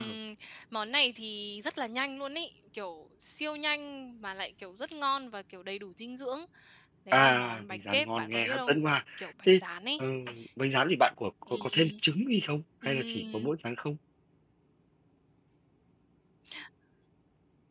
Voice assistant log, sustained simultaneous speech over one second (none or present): present